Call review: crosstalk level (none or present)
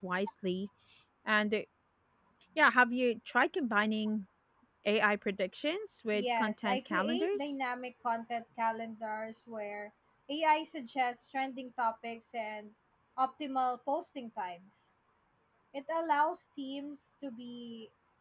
present